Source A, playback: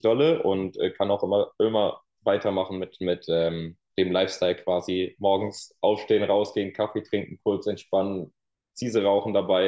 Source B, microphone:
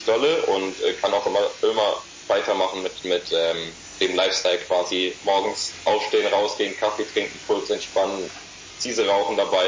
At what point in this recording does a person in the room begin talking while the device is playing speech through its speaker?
none

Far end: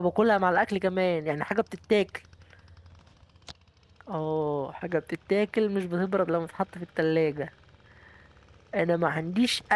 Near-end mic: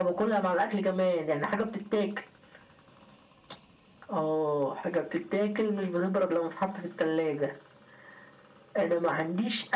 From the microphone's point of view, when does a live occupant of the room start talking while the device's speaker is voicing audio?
none

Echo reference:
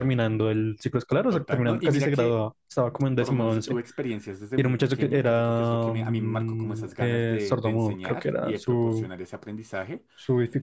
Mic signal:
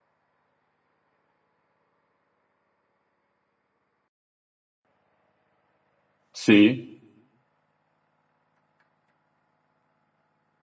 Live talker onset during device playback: 6.3 s

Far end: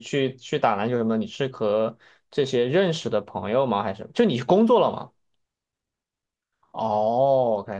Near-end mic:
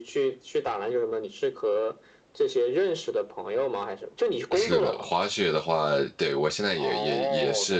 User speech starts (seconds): 4.5 s

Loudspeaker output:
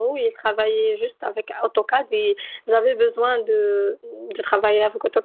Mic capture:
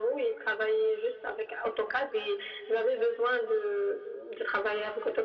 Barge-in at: none

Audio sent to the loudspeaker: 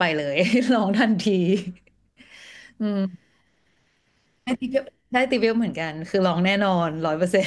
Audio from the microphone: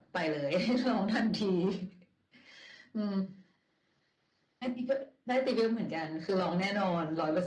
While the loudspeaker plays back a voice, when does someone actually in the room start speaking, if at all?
none

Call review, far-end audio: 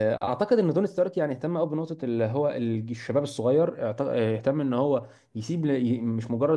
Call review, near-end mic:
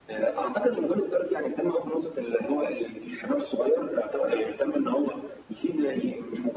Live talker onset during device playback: none

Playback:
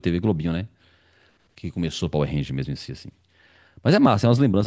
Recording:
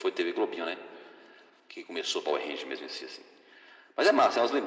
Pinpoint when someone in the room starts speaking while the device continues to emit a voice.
none

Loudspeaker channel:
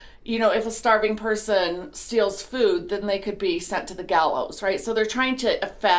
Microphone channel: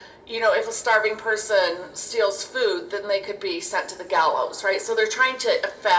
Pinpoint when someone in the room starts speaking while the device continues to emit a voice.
none

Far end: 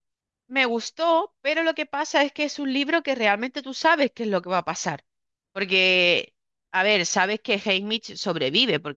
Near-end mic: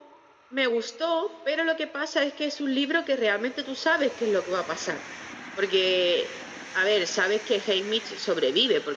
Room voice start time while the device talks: none

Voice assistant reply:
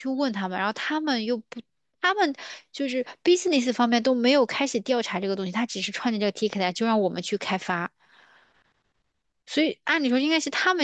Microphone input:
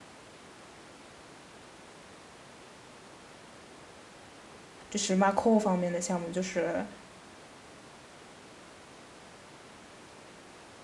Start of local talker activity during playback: 4.9 s

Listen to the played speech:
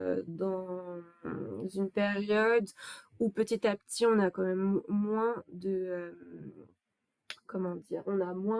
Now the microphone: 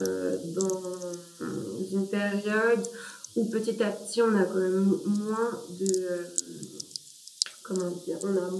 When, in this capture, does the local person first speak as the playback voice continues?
none

